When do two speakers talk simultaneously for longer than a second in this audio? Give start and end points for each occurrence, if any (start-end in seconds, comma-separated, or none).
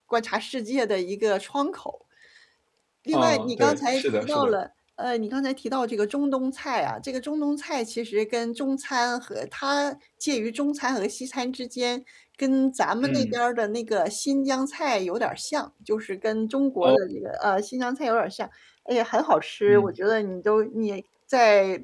3.1-4.5